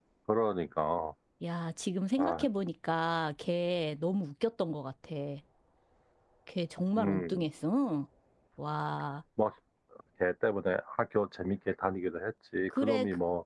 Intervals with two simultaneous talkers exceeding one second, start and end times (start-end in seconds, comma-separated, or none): none